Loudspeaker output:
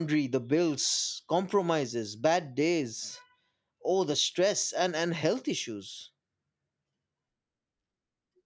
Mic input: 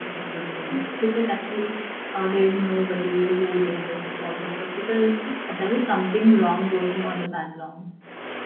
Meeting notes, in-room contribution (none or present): present